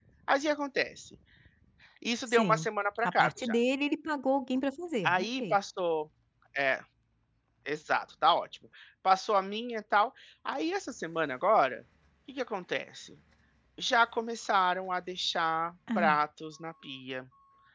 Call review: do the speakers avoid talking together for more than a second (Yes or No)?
Yes